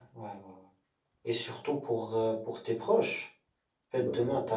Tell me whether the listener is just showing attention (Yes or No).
Yes